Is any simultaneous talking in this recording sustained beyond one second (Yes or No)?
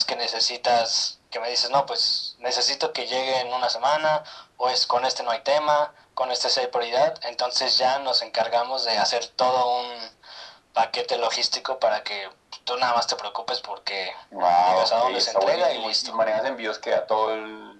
Yes